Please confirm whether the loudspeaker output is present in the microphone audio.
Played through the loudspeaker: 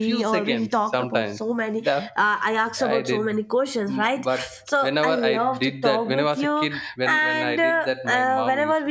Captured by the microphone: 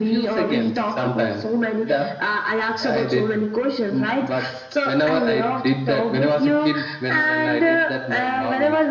Yes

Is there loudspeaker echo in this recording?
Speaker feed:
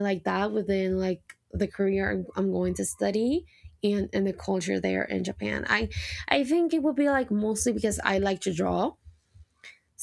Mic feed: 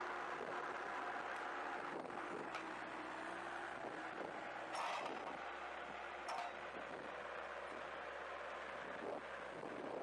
No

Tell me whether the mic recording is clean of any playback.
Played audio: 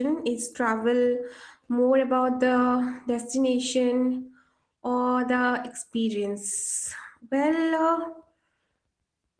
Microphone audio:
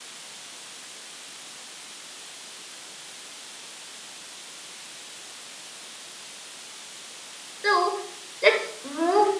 Yes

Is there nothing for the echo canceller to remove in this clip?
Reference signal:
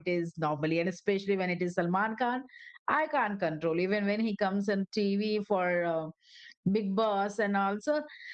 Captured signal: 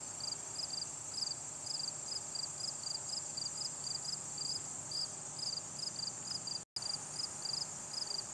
Yes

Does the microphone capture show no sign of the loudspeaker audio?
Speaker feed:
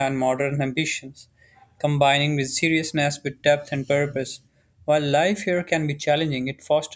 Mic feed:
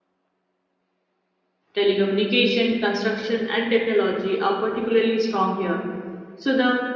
Yes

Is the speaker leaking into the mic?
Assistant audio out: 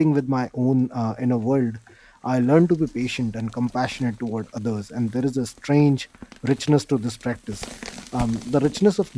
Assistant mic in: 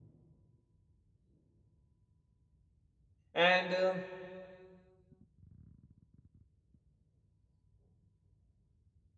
No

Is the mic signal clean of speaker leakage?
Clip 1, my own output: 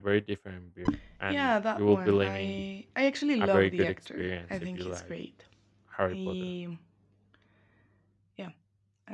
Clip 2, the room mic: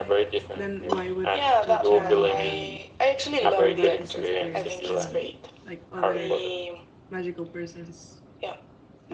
No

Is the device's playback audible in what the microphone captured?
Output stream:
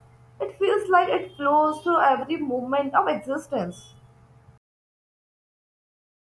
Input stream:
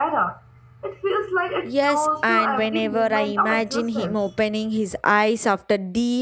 Yes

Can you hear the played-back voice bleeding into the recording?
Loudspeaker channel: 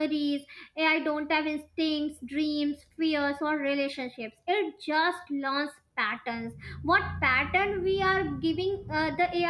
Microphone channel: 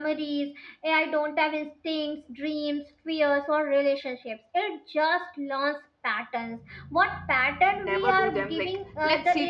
Yes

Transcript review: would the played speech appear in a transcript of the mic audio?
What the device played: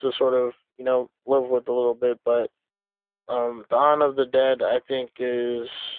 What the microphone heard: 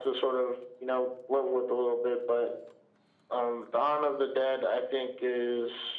Yes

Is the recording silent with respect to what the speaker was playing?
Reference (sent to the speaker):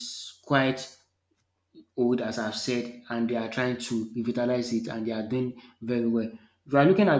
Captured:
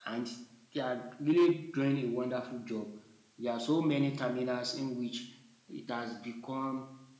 Yes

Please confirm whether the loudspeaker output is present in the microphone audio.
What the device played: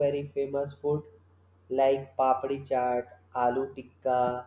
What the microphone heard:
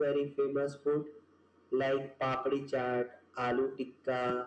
Yes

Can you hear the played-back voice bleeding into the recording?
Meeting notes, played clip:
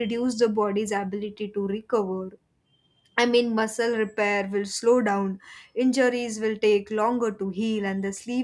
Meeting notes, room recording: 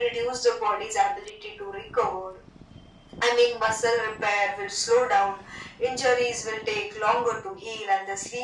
Yes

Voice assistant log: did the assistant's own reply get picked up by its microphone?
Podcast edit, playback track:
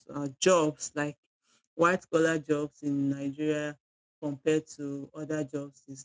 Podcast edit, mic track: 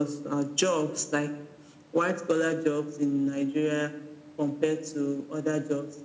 Yes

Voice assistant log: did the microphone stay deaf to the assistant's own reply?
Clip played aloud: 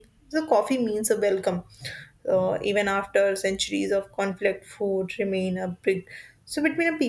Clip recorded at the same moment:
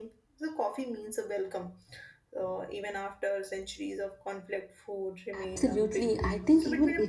No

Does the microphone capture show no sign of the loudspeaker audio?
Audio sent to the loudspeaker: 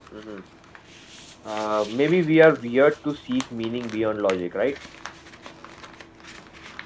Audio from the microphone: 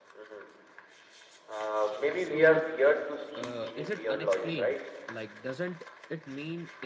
No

